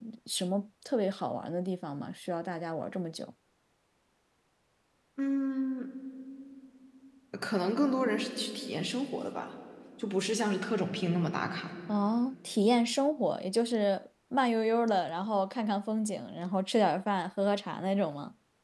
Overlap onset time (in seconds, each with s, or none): none